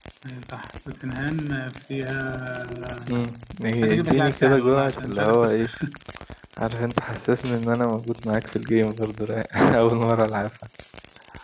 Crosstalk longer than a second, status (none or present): present